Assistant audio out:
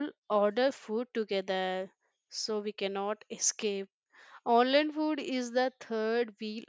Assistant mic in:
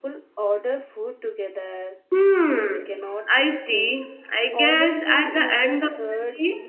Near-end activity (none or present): present